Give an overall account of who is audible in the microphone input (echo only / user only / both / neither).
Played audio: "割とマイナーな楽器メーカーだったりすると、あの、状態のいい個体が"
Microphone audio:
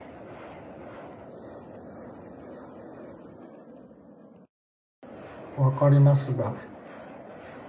user only